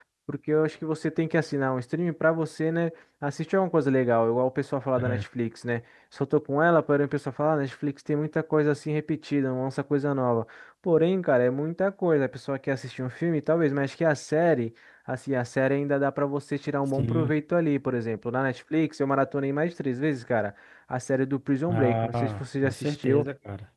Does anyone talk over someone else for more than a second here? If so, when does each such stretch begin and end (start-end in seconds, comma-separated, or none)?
21.7-23.2